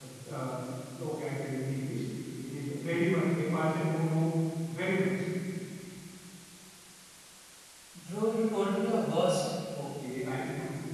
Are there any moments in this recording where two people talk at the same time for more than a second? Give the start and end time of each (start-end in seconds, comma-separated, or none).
none